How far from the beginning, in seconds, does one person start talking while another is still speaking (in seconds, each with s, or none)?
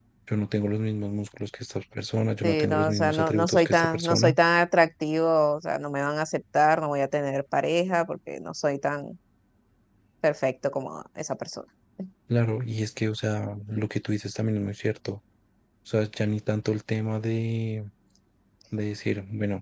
2.4 s